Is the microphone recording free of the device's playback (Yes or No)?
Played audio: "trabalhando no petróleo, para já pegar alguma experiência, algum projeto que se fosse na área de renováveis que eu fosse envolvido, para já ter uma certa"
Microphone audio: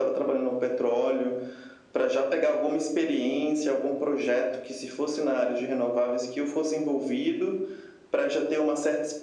No